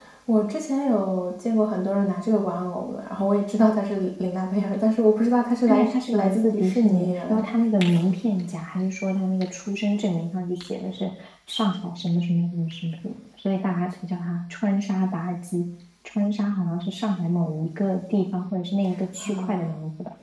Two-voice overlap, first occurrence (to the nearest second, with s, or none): 6 s